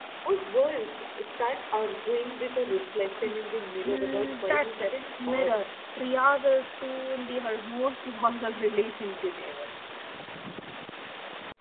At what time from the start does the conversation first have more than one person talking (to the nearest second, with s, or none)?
4 s